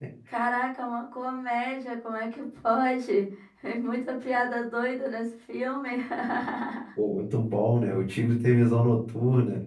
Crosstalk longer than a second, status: none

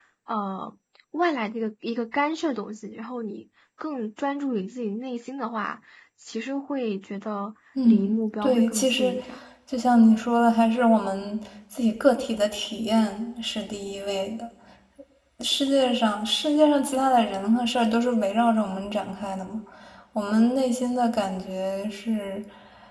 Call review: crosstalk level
present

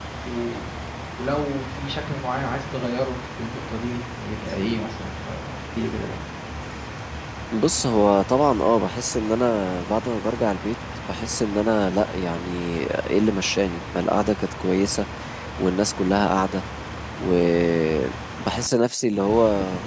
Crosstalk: none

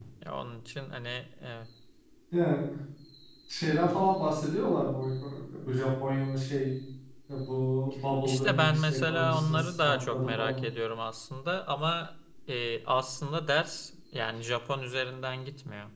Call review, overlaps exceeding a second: present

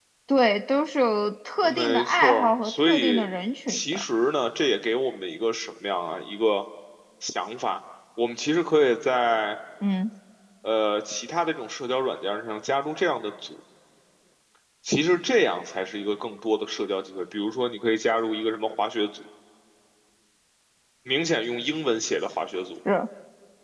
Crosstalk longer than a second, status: present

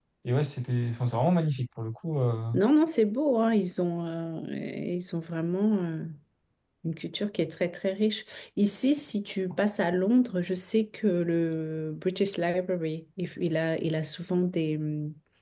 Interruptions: none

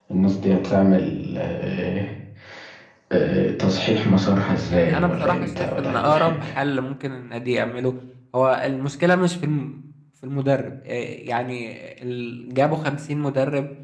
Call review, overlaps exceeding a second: present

